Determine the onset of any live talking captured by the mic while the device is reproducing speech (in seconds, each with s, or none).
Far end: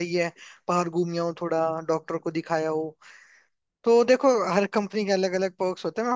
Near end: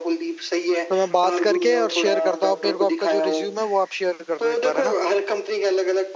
0.9 s